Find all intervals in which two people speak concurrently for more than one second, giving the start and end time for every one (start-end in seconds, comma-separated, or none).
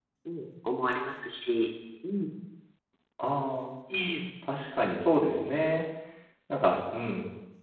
none